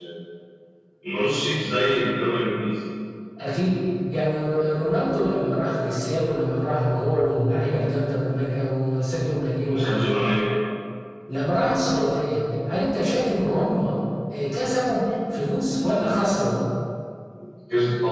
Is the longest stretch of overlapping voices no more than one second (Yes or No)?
Yes